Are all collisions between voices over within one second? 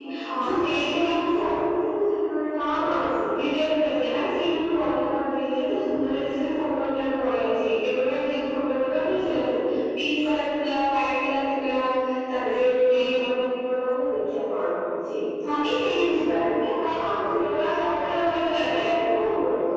No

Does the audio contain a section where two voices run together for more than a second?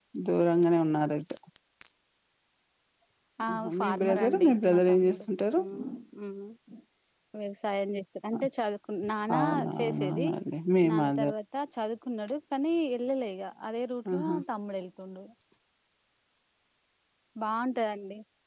Yes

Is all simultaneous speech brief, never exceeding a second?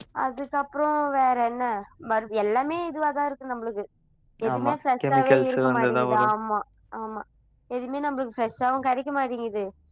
No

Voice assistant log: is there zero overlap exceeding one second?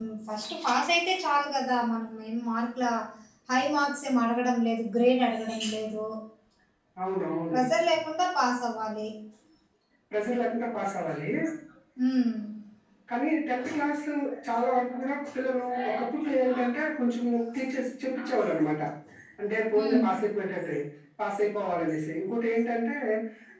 Yes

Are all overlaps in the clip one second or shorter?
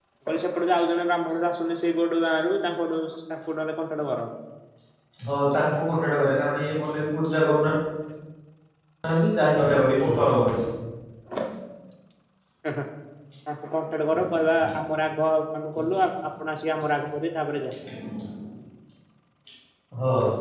Yes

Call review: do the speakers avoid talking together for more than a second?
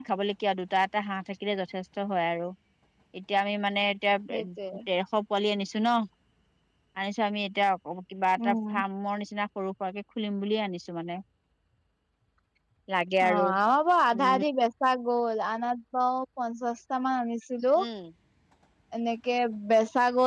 Yes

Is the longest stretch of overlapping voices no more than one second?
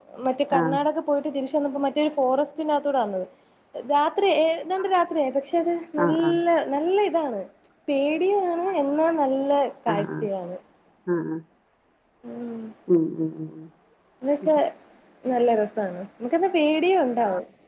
Yes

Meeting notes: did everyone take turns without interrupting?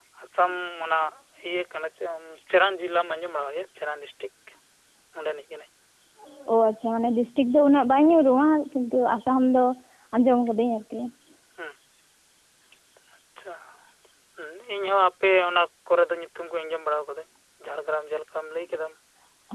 Yes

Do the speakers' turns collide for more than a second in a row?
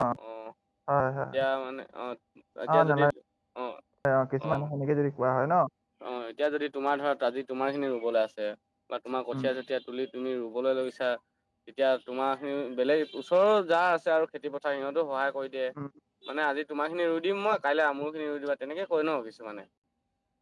No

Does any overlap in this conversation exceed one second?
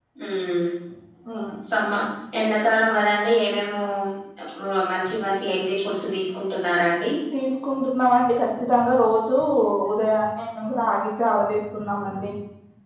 No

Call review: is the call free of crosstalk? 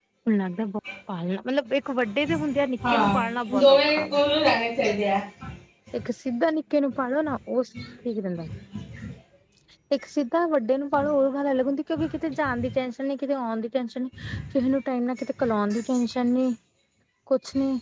No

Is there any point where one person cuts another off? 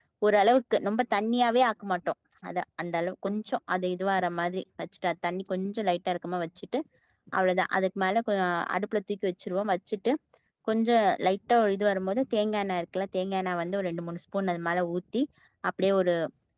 No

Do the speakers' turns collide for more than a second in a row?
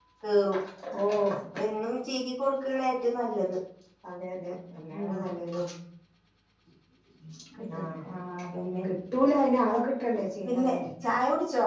No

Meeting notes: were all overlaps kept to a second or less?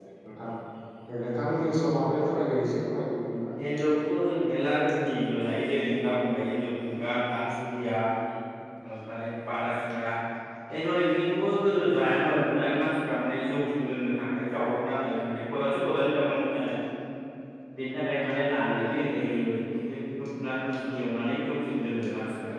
Yes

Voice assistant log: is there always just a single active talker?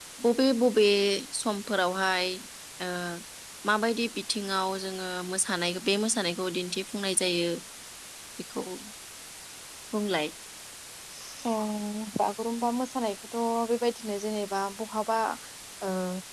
Yes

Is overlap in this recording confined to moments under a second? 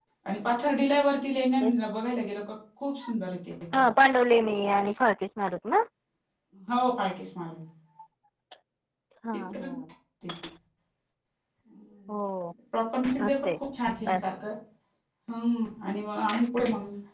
Yes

